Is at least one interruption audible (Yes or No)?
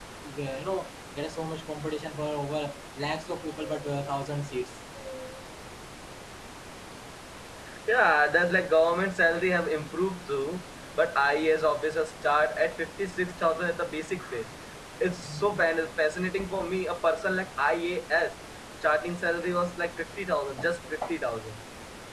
No